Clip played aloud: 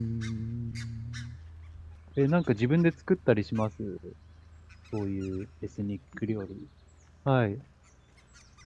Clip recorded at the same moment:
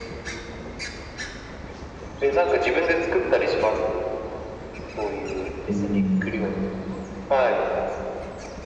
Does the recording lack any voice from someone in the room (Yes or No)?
No